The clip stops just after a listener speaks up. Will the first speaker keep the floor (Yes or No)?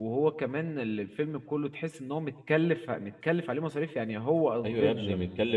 No